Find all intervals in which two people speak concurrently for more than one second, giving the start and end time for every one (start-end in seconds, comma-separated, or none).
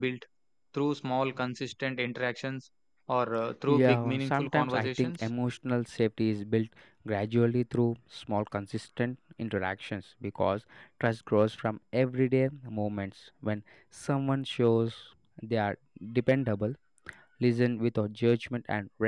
3.7-5.3